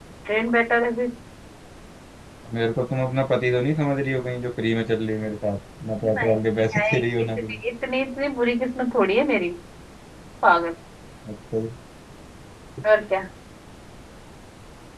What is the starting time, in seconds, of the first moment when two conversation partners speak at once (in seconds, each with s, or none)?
6.0 s